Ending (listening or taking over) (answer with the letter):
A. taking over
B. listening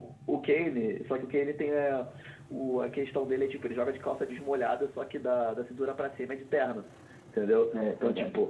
B